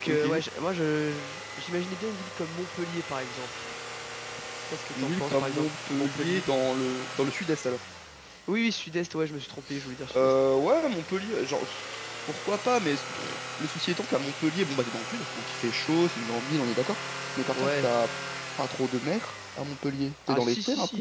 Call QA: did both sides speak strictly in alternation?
No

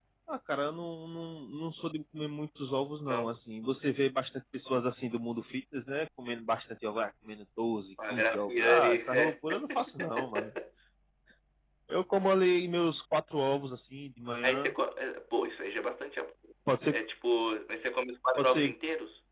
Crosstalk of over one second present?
Yes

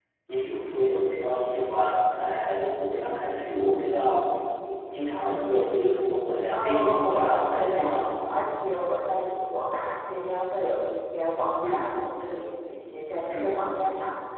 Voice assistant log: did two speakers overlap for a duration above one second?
Yes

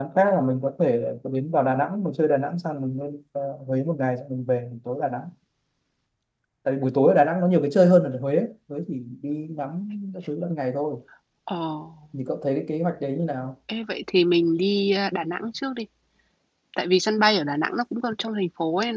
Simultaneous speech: No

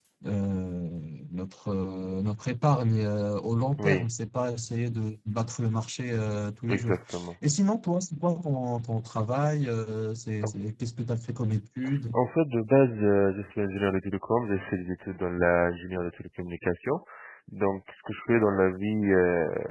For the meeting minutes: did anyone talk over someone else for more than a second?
No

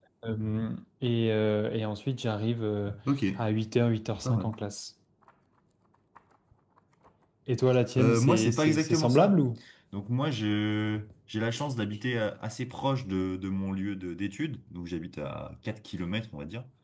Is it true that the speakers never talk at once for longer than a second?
No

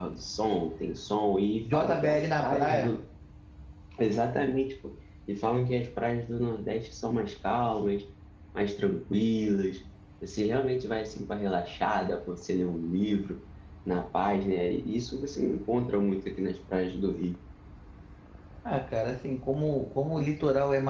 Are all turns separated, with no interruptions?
No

